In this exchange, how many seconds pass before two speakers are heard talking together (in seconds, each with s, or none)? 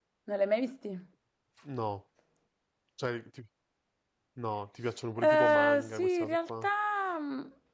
5.2 s